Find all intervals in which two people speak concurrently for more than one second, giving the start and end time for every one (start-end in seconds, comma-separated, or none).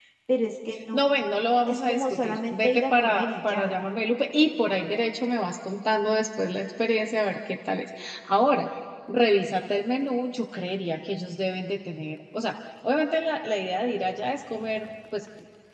1.7-3.8